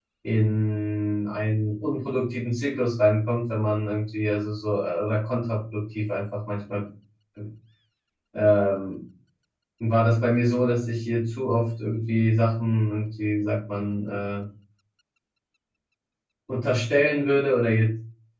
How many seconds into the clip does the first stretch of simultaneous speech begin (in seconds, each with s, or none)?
none